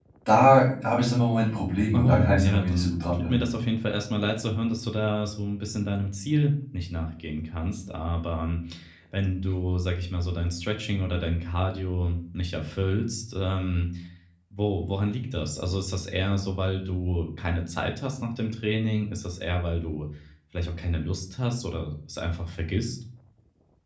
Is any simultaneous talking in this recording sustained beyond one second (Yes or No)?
Yes